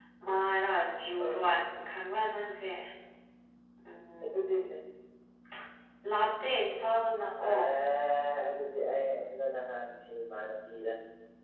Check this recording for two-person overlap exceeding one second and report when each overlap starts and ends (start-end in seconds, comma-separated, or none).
none